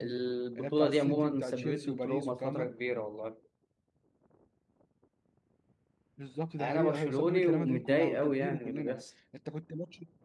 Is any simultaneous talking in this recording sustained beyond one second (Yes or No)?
Yes